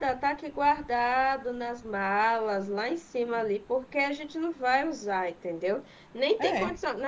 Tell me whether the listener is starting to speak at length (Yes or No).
No